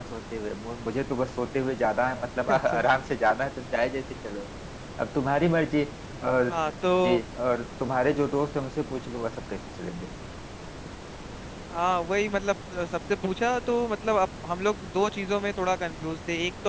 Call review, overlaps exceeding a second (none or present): none